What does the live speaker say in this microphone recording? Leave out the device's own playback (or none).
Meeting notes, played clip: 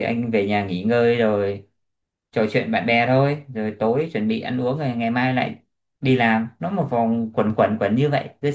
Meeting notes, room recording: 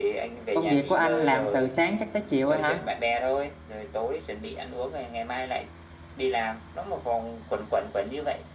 công việc của anh làm từ sáng chắc tới chiều rồi hả